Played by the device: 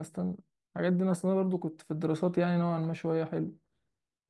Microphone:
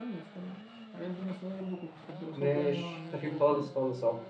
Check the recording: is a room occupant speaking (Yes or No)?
Yes